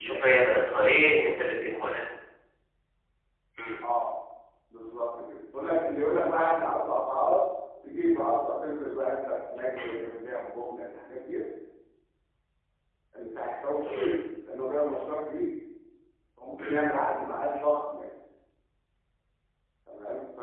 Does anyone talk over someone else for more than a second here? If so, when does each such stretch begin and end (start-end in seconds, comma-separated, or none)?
none